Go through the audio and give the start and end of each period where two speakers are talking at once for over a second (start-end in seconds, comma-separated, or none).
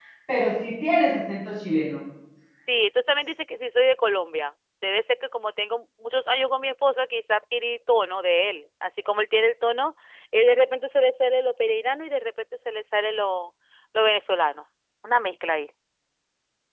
none